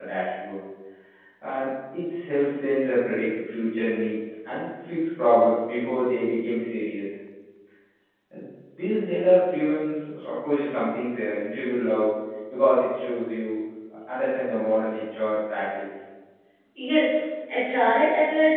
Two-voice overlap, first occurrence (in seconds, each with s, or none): none